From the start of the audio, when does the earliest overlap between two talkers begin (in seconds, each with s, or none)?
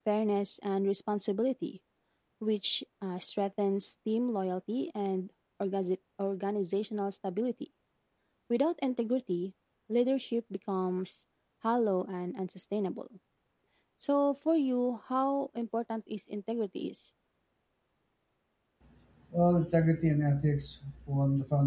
none